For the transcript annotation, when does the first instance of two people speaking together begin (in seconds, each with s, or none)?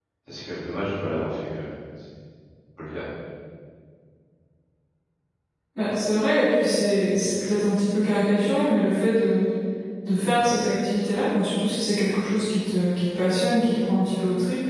none